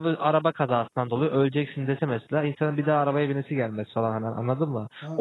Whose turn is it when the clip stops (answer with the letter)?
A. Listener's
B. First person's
A